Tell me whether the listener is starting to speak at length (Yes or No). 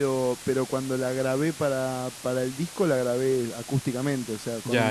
Yes